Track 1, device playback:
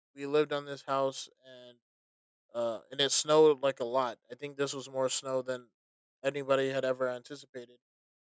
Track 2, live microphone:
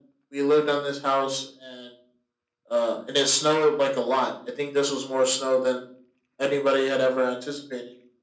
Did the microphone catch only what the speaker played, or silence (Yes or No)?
Yes